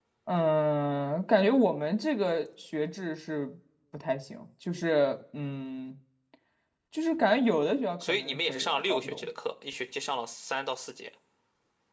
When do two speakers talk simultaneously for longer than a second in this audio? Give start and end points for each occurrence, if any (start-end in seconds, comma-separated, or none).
8.0-9.3